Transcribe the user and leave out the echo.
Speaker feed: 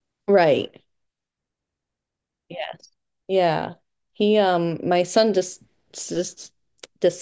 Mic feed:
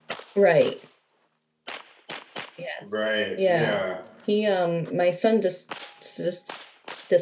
Right? Yeah,

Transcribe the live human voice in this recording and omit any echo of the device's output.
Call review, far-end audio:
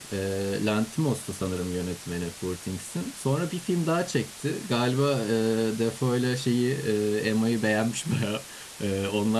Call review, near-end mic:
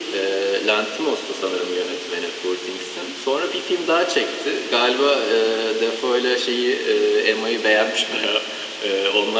none

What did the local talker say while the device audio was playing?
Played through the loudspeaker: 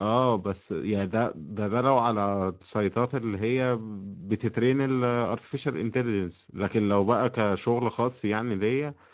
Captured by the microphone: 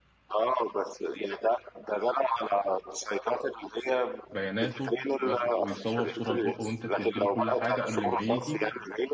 بياناته وياخد ويصور صوره لبقه وانت تديله كل حاجه قبل ما يجي

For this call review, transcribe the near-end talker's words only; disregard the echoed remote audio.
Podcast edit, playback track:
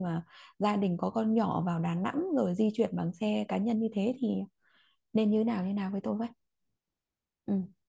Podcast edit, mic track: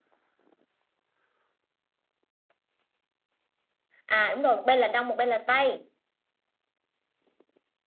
à đúng rồi một bên là đông một bên là tây

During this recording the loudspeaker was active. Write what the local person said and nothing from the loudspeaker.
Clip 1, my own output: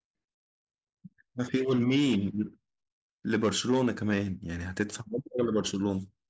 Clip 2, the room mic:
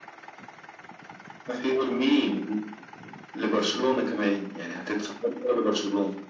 none

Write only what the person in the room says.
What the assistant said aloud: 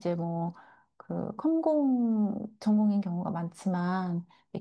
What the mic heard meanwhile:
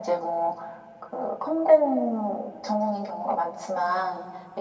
none

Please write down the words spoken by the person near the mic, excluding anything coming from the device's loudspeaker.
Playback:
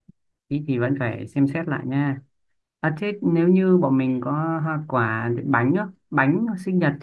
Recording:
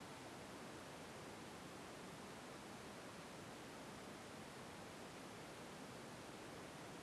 none

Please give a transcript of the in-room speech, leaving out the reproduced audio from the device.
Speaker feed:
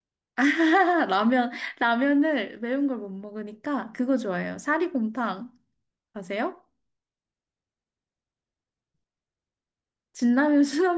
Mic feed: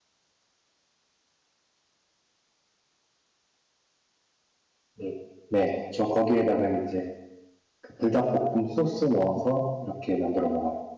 네, 네, 저 거기에다가 이제 그 불닭볶음 소스 넣어서 이렇게 만들어 먹어요.

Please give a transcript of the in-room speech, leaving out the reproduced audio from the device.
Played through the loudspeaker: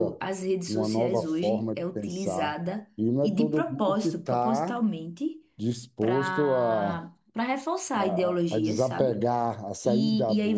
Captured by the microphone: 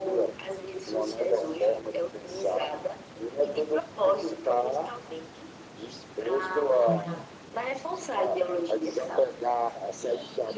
E-

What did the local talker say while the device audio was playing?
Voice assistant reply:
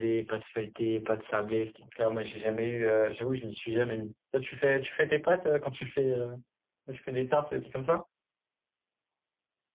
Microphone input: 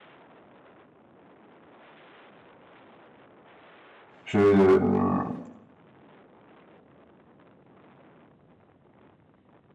je, mmh,

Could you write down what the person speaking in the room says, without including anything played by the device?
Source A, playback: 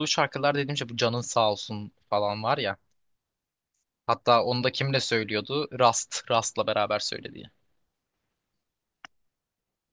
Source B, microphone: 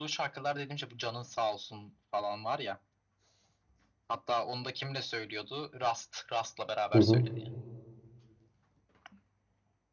Hı hı.

